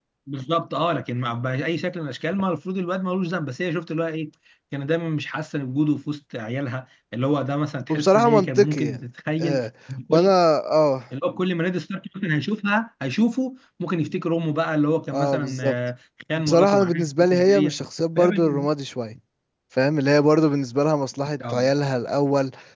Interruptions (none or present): present